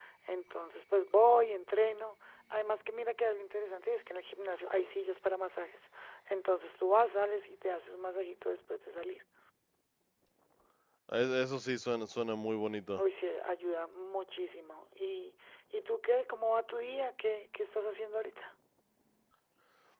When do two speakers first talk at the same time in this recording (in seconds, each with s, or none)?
none